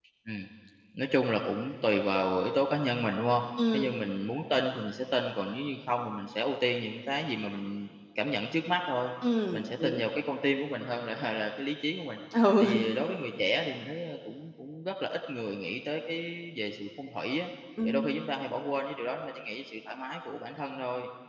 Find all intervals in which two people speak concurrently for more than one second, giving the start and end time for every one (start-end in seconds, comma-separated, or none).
none